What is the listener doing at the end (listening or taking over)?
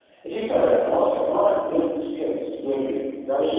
taking over